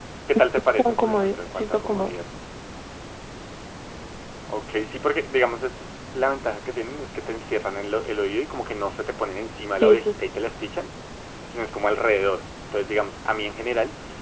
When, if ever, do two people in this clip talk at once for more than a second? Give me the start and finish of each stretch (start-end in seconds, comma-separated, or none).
0.8-2.1